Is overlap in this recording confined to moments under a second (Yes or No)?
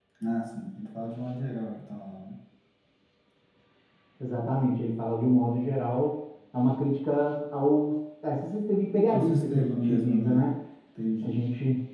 No